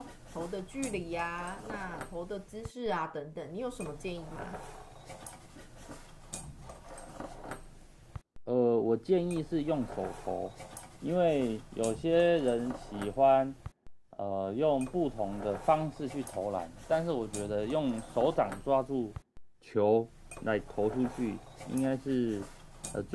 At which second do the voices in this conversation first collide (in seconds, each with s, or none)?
none